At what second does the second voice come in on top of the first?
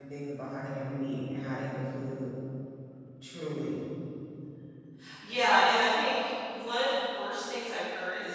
none

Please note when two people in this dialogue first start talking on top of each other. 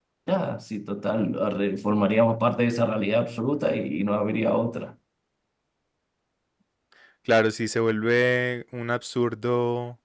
none

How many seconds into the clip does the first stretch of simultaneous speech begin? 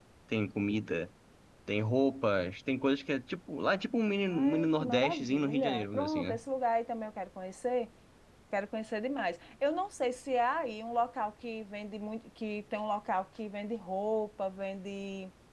4.3 s

